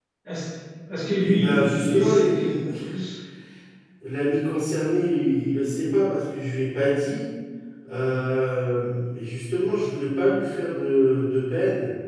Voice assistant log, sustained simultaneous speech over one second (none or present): present